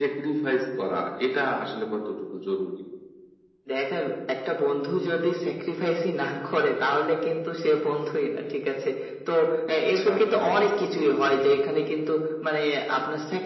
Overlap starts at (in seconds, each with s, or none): 9.9 s